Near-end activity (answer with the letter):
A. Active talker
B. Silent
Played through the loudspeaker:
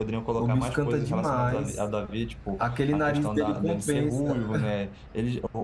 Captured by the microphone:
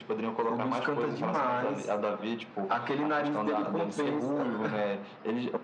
B